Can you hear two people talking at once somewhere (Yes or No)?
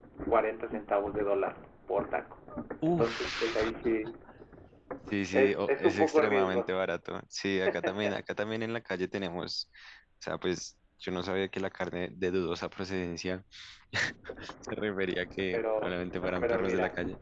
Yes